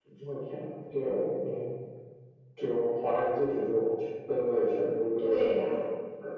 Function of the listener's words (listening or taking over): taking over